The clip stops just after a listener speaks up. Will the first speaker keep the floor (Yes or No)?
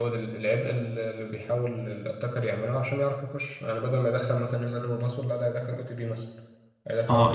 No